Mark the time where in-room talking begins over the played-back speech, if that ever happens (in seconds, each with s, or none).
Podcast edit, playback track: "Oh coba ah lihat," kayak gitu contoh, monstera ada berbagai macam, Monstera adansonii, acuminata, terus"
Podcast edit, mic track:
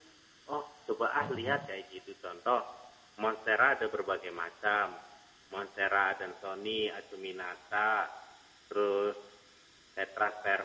1.2 s